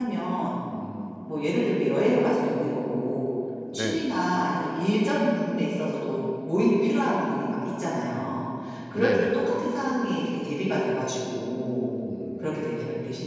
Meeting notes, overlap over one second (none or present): none